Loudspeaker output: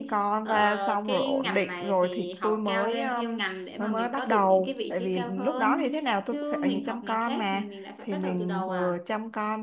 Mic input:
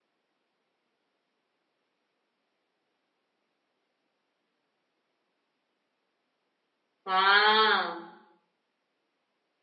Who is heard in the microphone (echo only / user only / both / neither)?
user only